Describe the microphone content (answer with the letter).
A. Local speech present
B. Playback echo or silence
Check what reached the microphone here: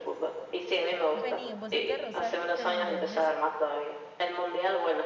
A